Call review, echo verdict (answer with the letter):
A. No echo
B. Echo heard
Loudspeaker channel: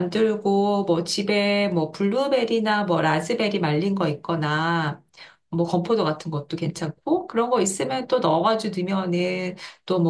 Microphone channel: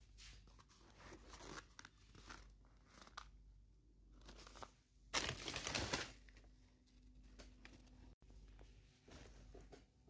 A